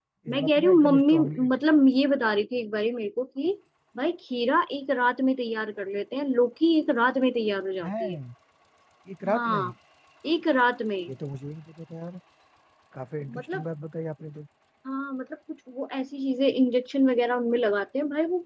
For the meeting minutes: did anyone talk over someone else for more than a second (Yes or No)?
Yes